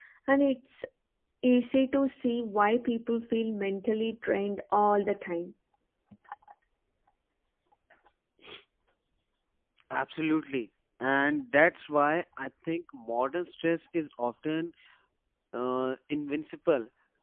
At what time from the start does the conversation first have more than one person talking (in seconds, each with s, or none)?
none